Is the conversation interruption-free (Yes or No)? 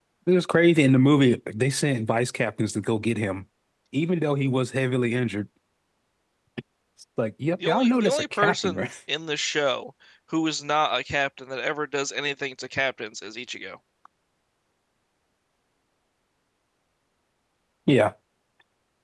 No